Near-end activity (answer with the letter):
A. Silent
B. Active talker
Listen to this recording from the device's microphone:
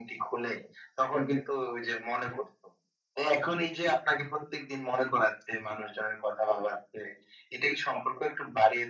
A